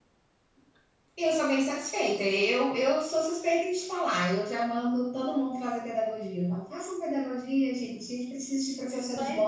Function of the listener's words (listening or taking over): taking over